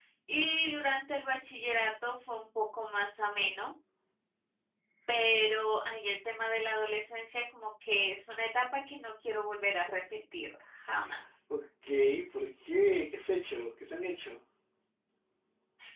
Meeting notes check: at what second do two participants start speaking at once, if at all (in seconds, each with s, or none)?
none